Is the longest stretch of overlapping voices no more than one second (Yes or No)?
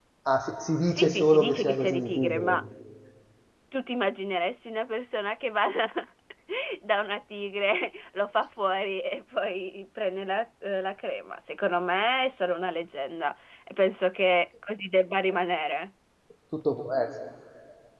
No